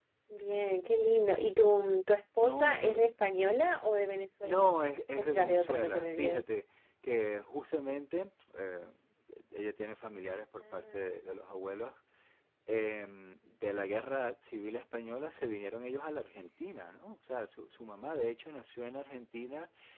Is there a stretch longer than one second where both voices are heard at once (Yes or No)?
Yes